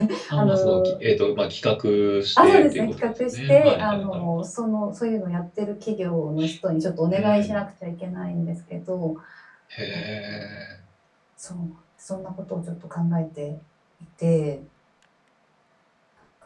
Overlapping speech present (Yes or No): Yes